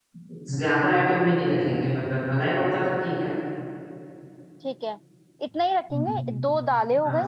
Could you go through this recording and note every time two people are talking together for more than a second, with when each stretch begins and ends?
none

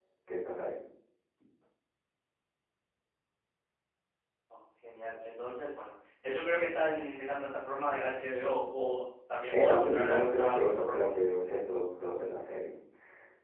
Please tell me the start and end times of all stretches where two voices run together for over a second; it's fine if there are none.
9.5-11.1

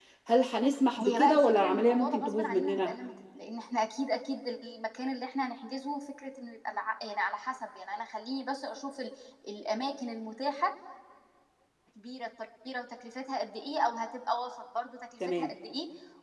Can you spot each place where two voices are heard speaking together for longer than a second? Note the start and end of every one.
1.0-2.9

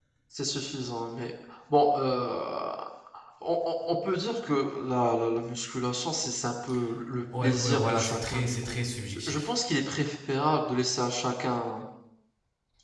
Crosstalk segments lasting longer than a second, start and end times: 7.4-8.8

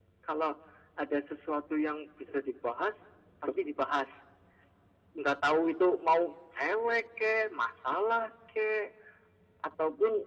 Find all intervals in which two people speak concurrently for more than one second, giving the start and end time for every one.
none

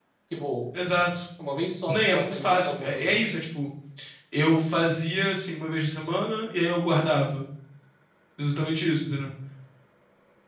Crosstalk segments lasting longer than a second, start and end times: 1.9-3.4

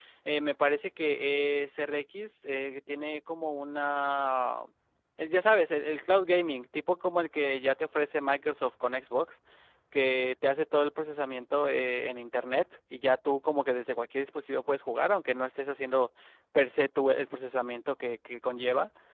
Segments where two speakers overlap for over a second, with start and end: none

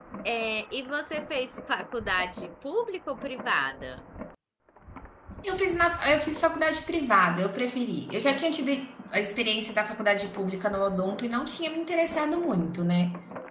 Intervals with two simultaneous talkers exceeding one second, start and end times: none

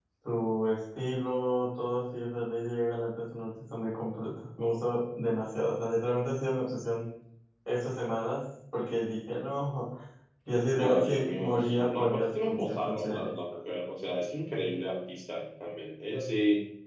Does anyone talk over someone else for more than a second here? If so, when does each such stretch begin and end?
10.8-13.3

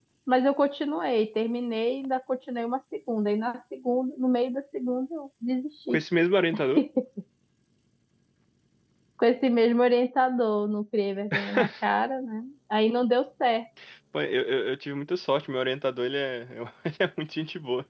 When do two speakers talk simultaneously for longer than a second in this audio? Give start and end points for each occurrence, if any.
none

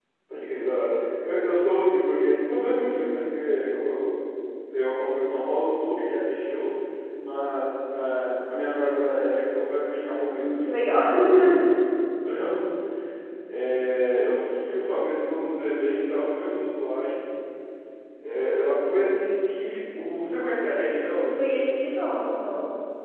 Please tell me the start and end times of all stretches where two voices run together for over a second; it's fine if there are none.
none

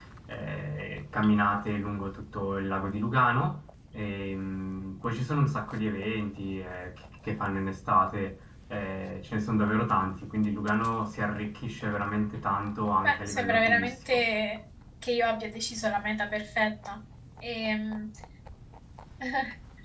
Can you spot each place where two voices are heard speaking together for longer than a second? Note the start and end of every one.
13.0-14.2

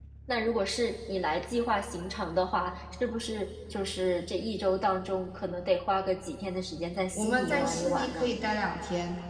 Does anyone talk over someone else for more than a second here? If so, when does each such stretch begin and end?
7.2-8.4

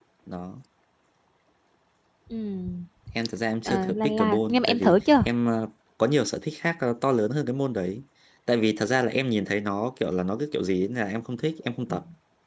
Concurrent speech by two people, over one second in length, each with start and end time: 3.6-5.3

